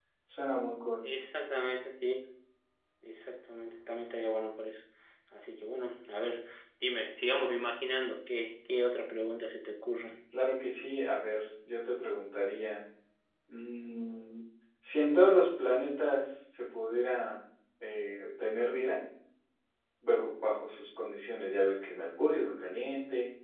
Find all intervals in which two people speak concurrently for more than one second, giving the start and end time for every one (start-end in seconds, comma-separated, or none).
none